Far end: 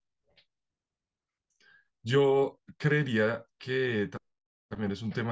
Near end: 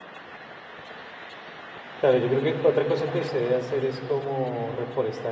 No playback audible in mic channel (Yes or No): Yes